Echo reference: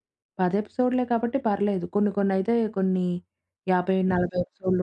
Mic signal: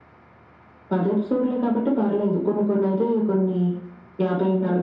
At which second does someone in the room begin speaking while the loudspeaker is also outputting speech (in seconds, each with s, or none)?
none